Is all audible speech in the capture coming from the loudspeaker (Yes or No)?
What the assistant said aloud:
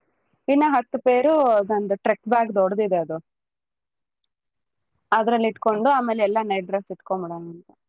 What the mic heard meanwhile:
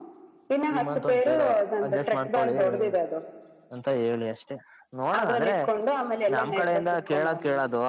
No